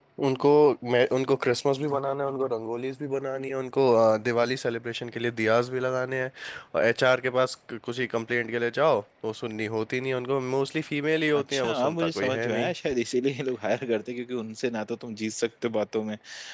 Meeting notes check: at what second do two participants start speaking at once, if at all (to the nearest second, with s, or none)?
11 s